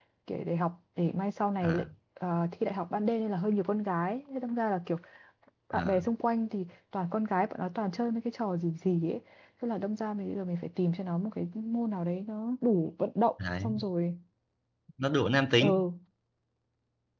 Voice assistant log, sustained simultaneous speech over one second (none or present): none